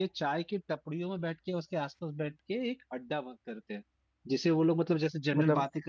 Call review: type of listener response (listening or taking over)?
listening